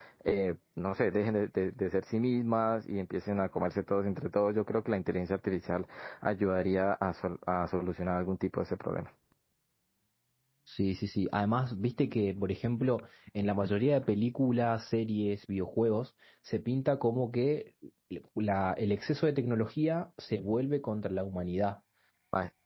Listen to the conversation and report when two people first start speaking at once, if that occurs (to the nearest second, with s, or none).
none